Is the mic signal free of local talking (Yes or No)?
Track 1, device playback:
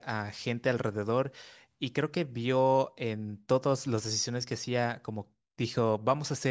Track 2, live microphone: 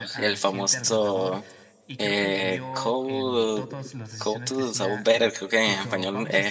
No